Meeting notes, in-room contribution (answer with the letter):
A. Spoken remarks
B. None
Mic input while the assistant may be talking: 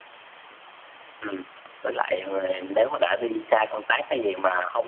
B